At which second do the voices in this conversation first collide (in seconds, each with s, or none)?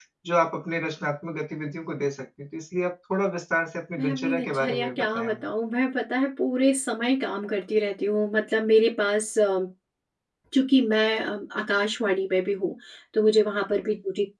4.0 s